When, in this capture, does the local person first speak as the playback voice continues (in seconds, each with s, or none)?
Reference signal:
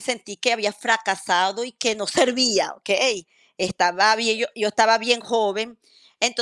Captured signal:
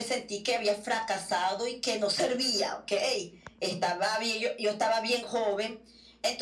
none